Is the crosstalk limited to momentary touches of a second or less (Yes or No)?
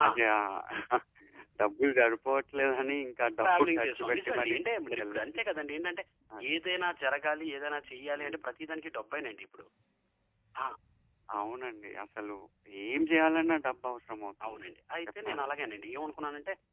No